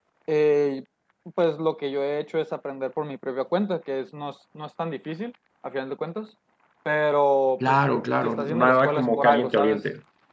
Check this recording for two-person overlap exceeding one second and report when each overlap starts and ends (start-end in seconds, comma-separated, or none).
8.2-9.8